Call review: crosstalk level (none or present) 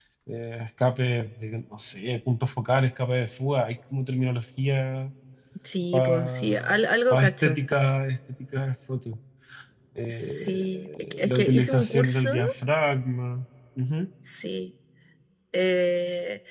present